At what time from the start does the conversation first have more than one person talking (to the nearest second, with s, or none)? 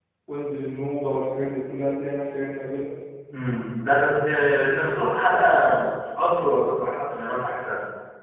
none